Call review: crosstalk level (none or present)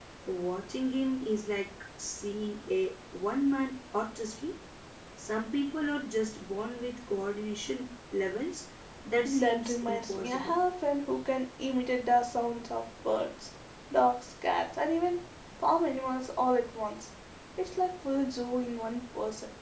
present